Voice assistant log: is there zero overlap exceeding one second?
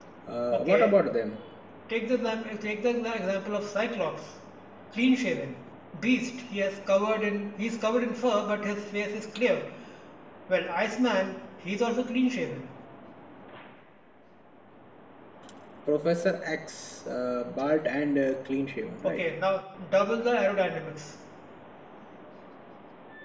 Yes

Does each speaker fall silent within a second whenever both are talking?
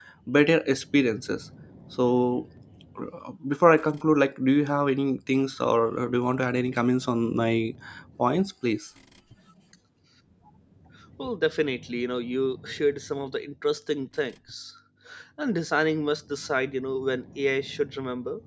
Yes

